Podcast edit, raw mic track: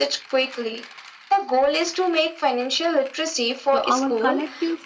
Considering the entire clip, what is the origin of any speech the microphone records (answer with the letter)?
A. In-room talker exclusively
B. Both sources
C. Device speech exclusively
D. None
B